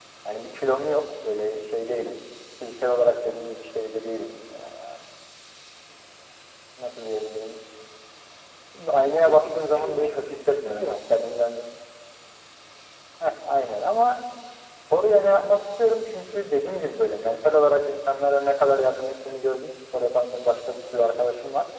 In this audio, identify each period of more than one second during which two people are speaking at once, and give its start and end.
9.2-11.0

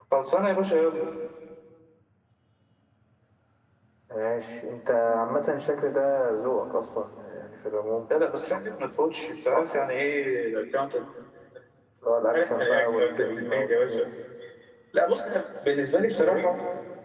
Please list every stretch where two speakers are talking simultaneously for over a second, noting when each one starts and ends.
12.3-14.0

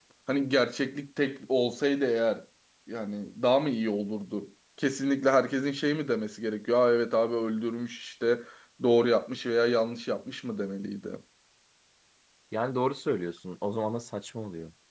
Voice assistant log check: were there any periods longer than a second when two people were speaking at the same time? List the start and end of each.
none

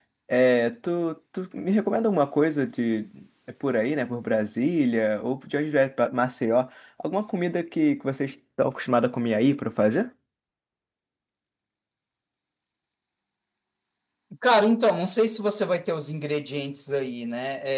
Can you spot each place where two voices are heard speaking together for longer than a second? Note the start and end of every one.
none

